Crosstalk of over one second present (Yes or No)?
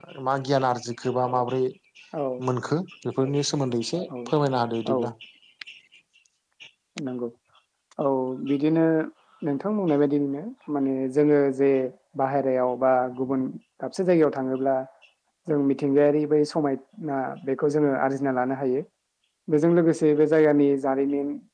No